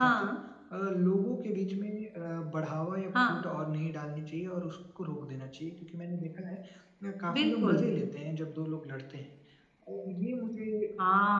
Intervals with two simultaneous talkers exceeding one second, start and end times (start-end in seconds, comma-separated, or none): none